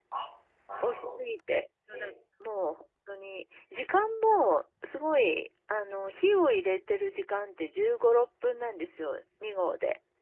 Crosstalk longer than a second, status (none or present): none